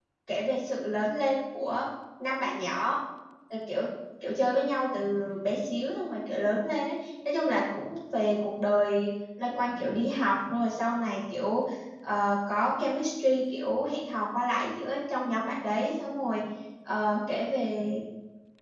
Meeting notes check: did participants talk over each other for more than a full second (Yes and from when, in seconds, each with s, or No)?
No